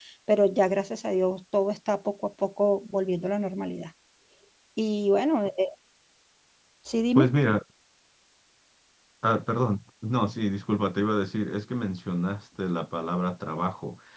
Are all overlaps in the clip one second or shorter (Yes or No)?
Yes